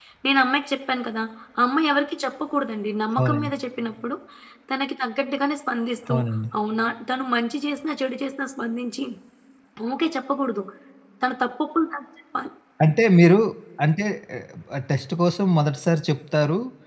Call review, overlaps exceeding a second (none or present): none